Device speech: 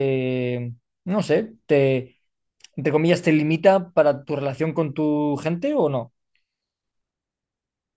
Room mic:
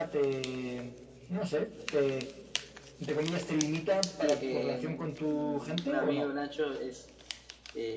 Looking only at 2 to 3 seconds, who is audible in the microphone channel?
echo only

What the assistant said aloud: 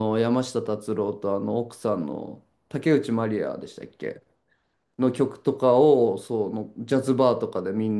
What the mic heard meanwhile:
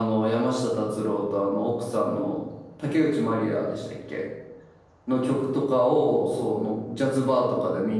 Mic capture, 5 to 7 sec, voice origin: echo only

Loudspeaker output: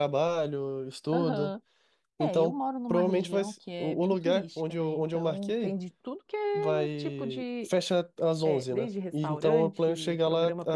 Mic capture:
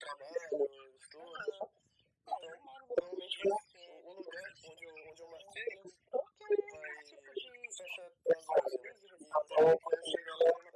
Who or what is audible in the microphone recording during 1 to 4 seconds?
echo only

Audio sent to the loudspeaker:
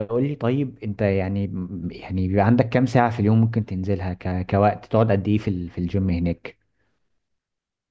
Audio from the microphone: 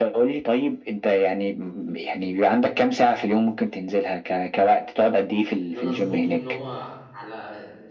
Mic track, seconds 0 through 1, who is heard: echo only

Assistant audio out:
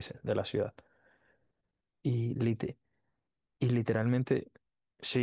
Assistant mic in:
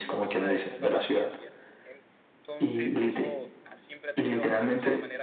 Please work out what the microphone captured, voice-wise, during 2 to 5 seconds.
both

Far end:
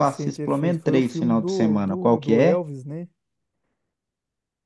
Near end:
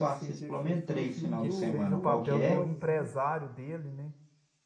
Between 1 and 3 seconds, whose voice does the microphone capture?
both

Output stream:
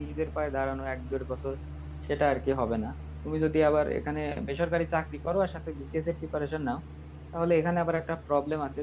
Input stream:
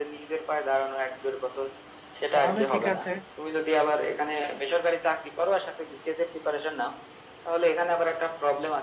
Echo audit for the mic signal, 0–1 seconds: echo only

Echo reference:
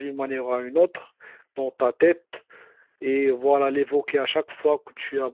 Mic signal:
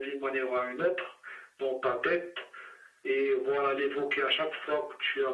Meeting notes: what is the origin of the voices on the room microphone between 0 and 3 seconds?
echo only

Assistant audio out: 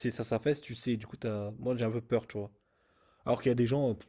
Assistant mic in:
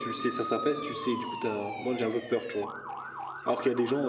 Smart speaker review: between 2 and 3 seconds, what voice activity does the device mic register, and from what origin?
echo only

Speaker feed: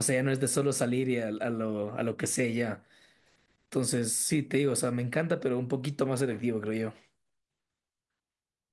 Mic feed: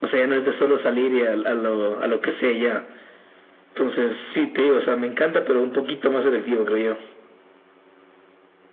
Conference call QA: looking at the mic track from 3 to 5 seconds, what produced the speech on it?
echo only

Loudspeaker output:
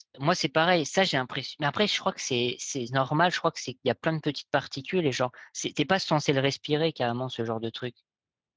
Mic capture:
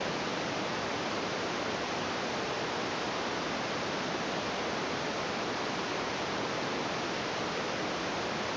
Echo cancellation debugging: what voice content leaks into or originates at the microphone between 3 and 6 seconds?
neither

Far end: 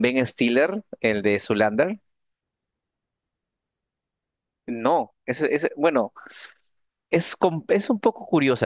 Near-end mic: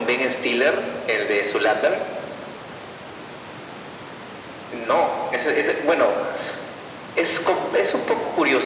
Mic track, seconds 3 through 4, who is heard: neither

